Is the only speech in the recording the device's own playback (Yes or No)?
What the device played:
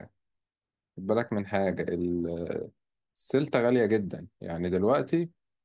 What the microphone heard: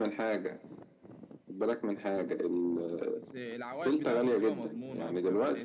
No